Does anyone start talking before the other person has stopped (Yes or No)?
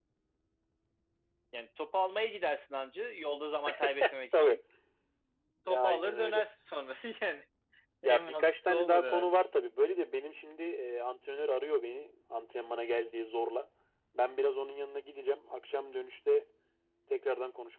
Yes